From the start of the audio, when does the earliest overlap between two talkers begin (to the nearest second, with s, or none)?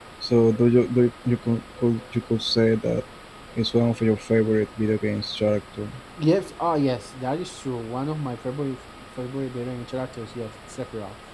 none